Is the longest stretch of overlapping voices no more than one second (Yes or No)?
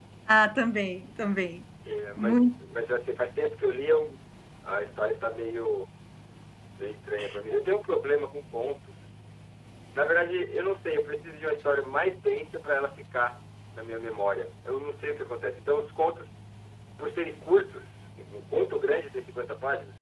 Yes